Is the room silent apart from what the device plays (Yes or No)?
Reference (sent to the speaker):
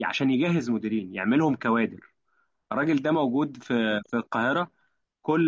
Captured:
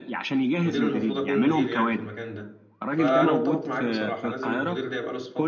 No